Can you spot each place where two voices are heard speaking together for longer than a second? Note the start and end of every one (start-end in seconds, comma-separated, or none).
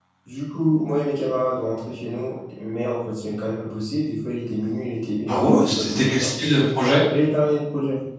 5.3-6.5